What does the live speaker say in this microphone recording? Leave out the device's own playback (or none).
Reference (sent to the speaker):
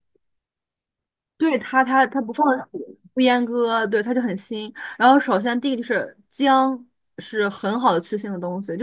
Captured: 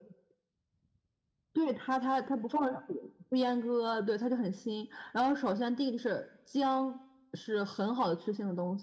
none